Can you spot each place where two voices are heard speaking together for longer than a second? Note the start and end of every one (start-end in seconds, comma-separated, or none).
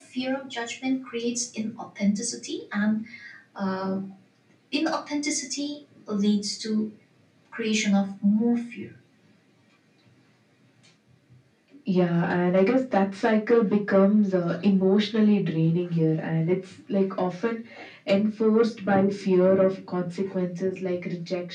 none